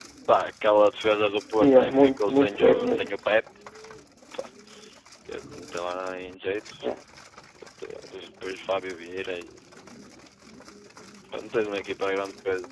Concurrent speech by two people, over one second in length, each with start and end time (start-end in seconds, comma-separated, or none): 1.6-3.1